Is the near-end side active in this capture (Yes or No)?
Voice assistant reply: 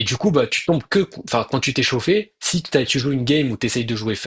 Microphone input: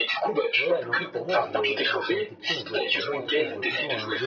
Yes